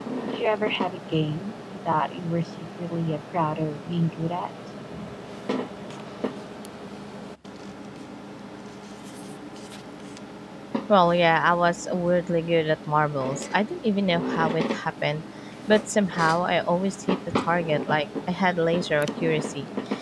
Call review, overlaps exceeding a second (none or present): none